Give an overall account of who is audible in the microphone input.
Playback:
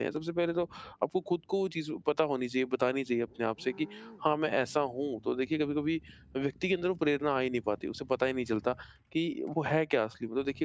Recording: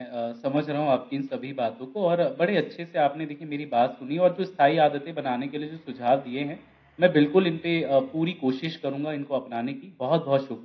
user only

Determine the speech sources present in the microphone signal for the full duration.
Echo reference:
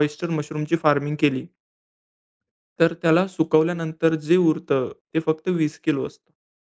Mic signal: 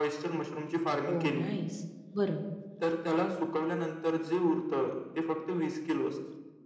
both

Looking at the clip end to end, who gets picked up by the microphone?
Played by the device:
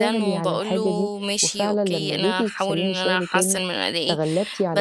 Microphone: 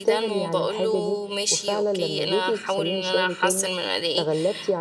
echo only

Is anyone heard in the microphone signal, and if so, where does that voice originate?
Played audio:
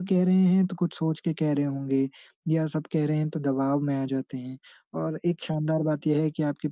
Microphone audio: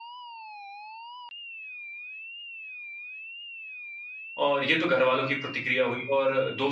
user only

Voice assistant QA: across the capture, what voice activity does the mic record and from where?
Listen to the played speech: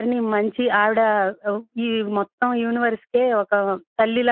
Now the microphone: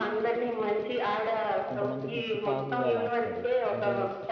both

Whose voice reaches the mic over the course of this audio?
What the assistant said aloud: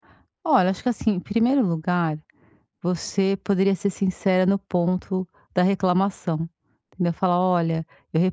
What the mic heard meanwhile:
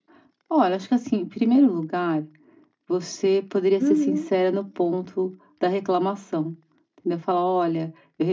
both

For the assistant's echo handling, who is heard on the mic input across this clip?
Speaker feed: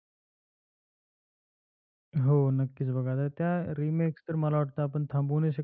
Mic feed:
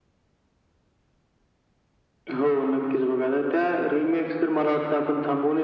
echo only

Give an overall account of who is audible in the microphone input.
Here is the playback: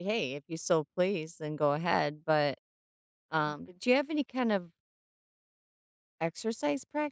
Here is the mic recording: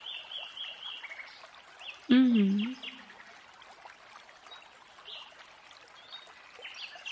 user only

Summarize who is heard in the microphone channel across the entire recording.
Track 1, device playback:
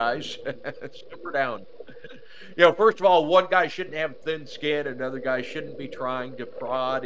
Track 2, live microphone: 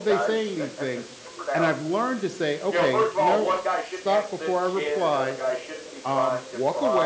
both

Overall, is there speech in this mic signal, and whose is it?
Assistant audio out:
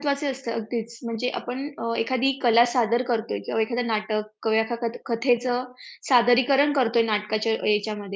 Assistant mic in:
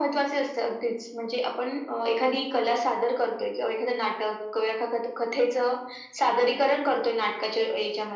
echo only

